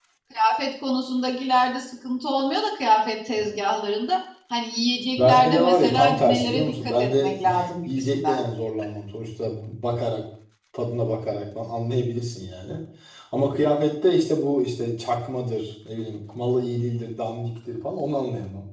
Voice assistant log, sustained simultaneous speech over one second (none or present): present